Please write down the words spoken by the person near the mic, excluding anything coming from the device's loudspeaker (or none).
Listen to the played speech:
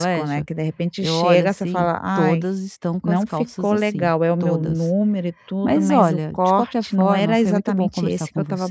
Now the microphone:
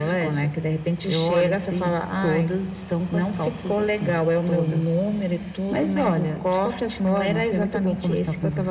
none